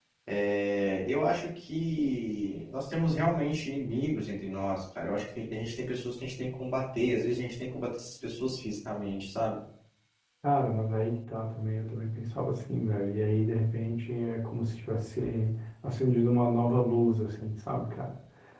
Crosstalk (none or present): none